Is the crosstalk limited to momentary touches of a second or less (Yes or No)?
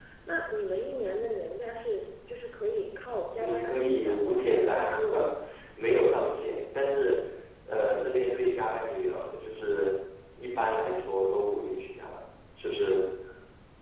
No